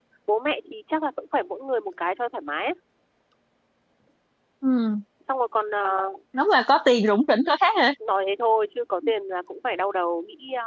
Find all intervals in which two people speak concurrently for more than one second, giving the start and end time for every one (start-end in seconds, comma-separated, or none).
none